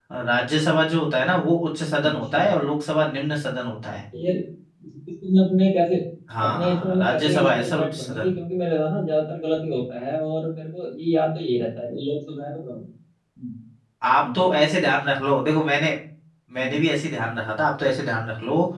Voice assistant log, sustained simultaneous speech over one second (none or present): present